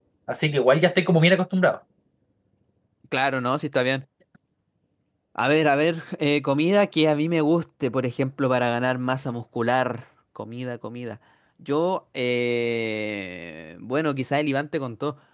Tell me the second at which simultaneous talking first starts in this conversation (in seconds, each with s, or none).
none